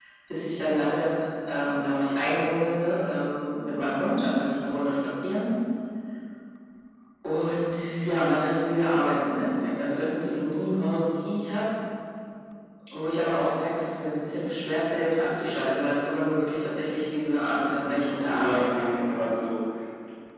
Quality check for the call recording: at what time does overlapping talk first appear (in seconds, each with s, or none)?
17.9 s